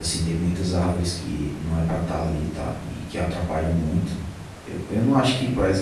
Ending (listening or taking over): listening